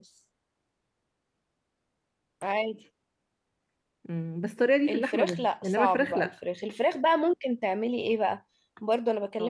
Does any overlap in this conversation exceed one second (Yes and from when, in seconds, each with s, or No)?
Yes, from 4.9 s